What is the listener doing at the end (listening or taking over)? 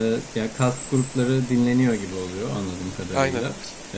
listening